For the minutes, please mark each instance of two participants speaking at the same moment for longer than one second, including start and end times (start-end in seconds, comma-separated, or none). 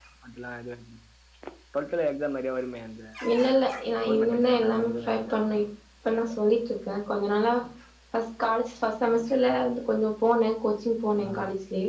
4.0-5.4